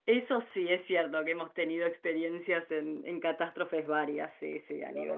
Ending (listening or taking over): taking over